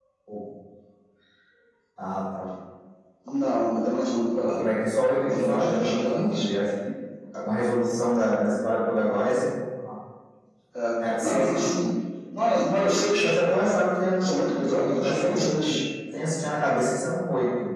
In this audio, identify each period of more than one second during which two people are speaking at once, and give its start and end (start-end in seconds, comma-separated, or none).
5.3-6.5, 14.2-15.8